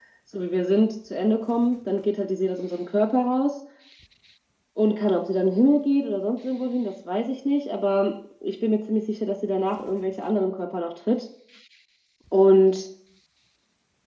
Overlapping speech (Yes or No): No